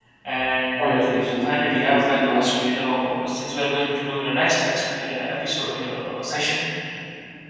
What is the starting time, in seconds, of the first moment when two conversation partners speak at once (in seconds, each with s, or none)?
0.8 s